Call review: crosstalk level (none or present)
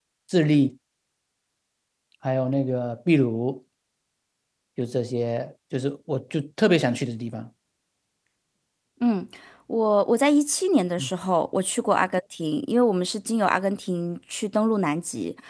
none